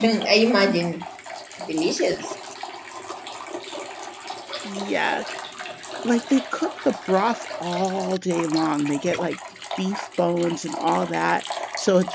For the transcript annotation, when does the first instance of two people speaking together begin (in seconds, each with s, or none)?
none